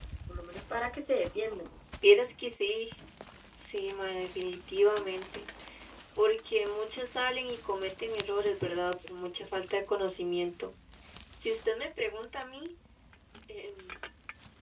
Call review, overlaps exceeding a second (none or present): none